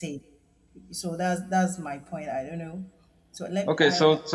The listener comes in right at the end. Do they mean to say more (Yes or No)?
Yes